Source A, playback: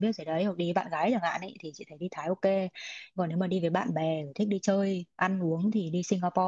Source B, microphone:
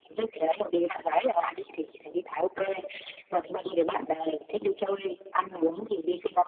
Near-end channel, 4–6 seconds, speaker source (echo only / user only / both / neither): echo only